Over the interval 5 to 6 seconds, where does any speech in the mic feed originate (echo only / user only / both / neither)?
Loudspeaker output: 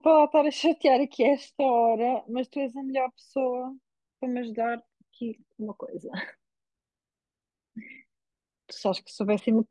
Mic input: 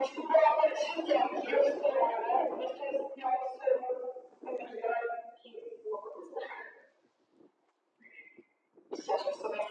echo only